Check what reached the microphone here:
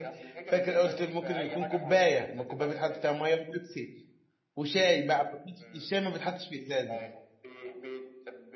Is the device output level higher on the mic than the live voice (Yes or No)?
No